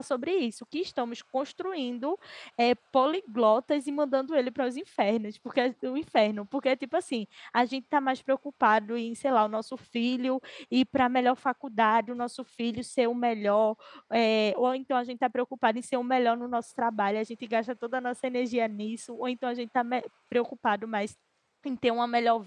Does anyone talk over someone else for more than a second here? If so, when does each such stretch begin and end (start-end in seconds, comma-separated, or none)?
none